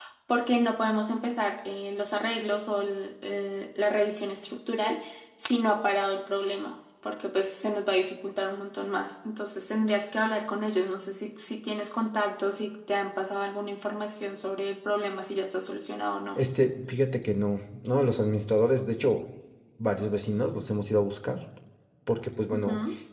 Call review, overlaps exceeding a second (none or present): none